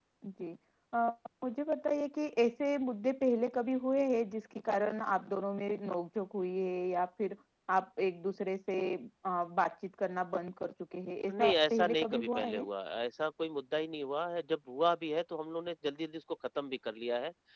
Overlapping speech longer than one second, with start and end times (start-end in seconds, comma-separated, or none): 11.3-12.6